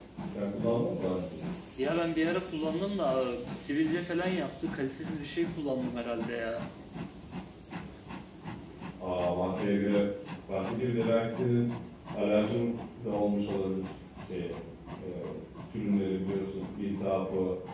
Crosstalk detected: No

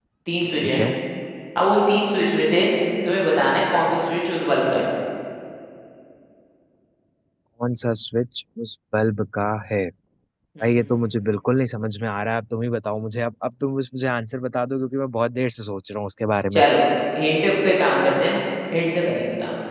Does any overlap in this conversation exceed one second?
No

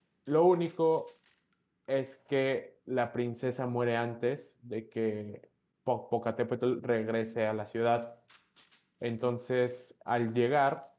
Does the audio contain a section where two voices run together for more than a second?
No

